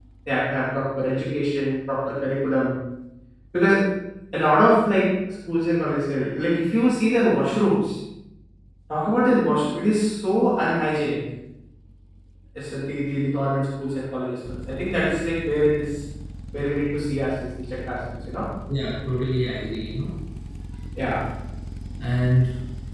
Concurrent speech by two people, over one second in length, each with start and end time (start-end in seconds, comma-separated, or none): none